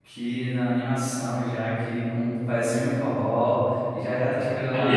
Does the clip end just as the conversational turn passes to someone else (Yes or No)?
No